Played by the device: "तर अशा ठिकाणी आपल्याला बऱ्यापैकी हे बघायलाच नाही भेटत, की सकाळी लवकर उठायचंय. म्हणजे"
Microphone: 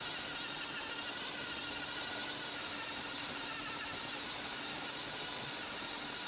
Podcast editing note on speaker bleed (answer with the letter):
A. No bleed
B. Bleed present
A